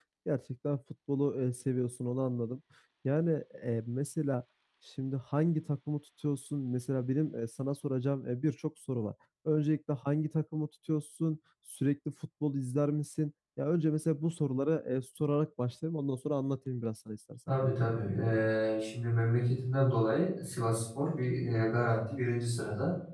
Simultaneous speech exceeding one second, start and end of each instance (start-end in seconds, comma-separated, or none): none